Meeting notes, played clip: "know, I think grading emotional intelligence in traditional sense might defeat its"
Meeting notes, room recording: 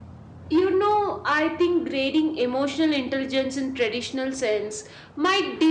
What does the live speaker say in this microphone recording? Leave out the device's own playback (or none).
none